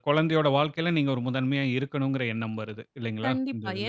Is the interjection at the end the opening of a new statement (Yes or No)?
Yes